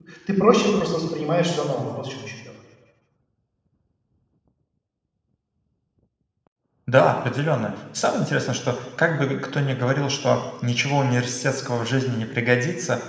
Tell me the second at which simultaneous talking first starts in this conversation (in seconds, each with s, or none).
none